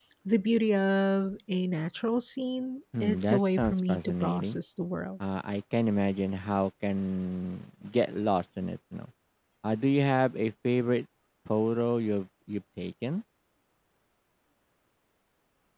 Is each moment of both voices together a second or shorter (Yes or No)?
No